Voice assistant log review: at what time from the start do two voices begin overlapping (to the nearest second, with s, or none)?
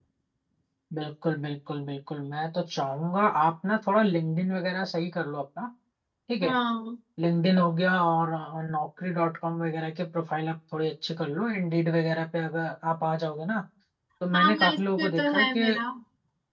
14 s